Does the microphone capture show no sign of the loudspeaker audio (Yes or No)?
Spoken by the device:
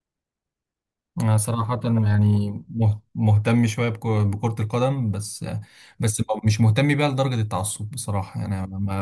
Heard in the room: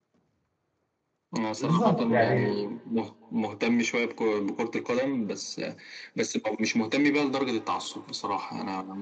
No